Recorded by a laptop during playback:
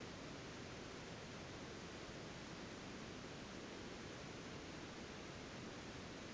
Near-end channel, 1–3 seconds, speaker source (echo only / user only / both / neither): neither